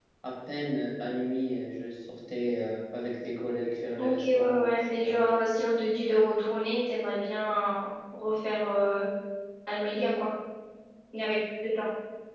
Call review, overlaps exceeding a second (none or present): present